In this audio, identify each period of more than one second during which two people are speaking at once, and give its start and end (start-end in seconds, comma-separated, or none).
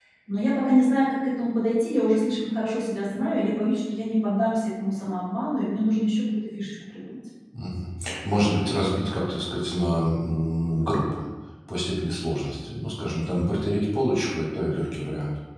none